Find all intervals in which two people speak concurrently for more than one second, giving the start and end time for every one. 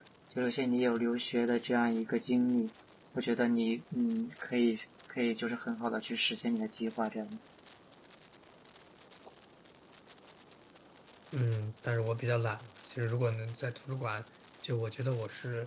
none

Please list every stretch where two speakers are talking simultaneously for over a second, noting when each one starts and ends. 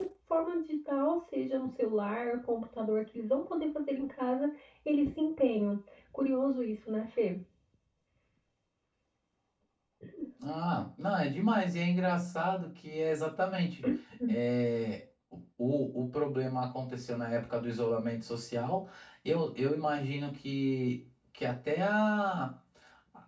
none

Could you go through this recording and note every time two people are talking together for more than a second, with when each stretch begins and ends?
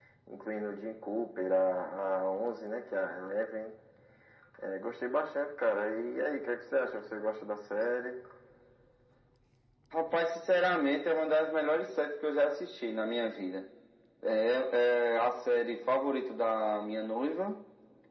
none

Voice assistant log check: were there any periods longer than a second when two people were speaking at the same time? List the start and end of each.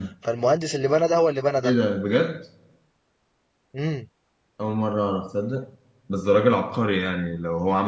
none

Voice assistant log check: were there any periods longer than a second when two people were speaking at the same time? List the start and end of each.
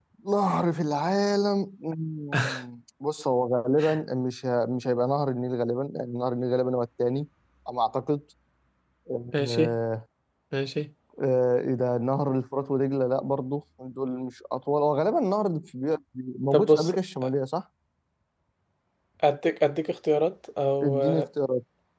none

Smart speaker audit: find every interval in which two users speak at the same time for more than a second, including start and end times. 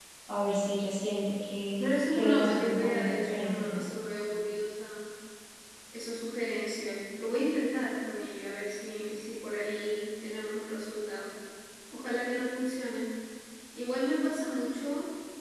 1.8-3.8

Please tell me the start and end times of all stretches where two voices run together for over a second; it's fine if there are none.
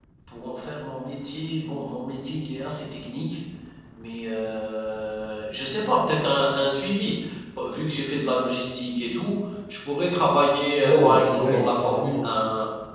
10.8-12.3

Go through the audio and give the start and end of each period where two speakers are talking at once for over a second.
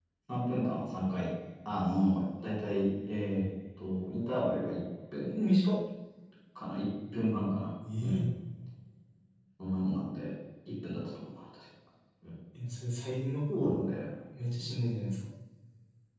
none

